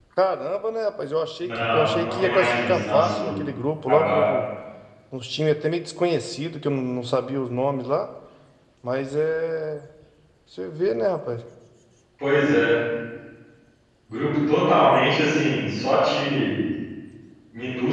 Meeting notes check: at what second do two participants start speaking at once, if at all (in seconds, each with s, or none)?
1.4 s